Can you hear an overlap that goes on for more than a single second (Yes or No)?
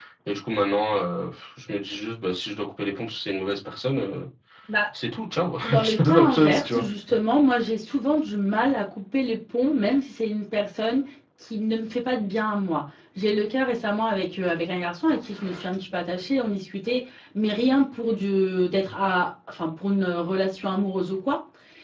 Yes